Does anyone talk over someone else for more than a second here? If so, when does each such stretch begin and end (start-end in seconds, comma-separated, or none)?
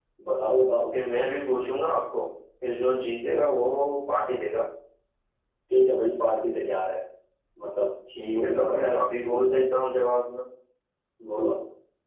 8.4-9.6